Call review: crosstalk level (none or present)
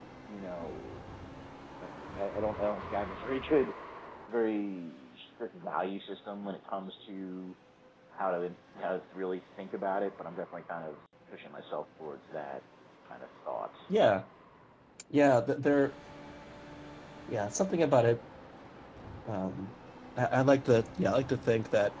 none